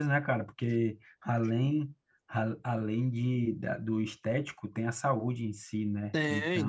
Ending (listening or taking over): taking over